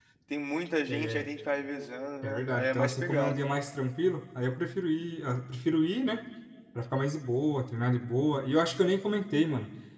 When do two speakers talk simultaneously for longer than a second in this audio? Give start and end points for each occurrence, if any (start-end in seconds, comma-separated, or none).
2.2-3.4